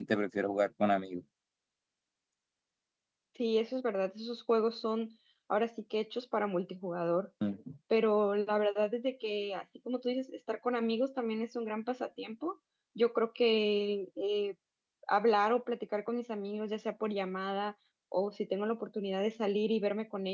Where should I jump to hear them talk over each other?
none

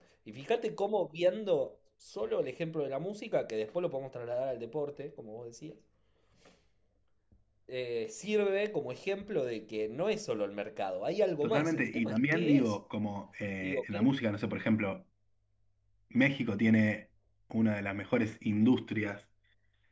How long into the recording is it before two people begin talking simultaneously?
11 s

